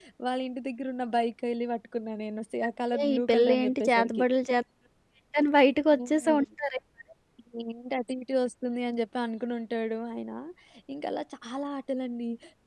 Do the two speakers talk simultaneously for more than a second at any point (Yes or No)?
Yes